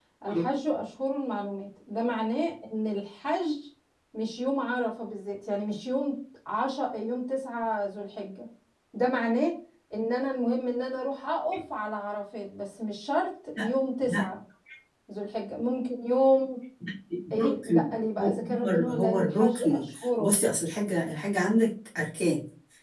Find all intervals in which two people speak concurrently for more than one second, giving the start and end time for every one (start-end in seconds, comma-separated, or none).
17.4-20.4